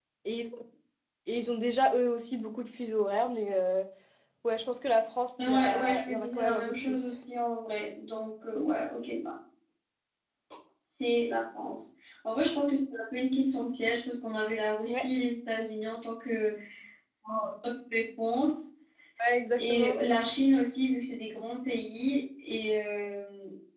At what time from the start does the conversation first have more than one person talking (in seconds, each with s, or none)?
5.4 s